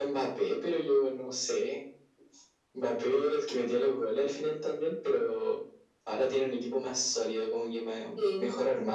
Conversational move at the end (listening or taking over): listening